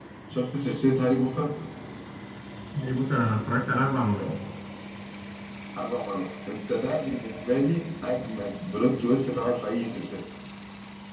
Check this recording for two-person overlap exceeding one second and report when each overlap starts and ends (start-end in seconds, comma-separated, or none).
none